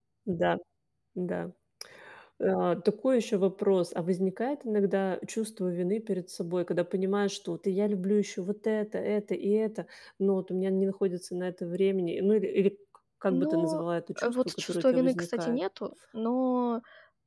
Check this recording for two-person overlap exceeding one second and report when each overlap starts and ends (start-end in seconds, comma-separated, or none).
14.2-15.6